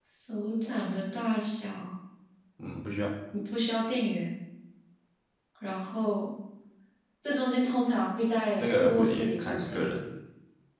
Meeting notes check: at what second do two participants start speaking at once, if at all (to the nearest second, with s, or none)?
9 s